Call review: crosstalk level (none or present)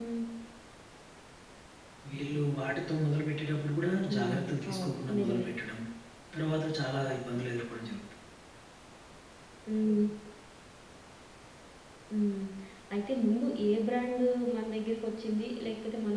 present